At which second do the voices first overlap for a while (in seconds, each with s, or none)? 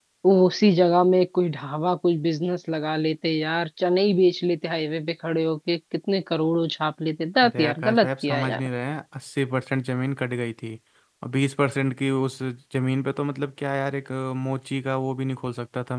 7.4 s